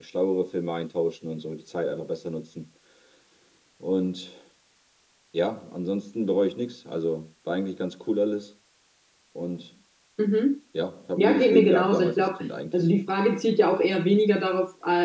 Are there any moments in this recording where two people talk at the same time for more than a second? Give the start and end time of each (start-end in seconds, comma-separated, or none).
11.2-12.8